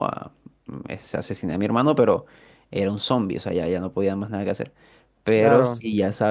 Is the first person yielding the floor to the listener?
No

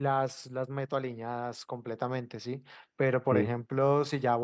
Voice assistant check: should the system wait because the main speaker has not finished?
Yes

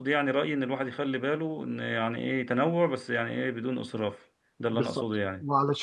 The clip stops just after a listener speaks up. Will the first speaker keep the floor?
No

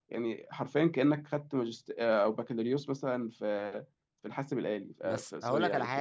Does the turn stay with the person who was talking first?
No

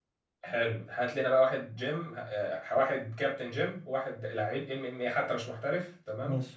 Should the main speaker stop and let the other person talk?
No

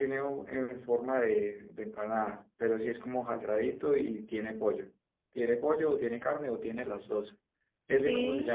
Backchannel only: No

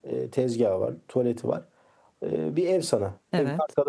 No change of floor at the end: Yes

